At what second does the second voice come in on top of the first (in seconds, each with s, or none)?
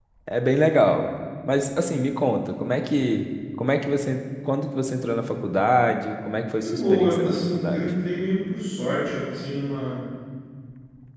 6.6 s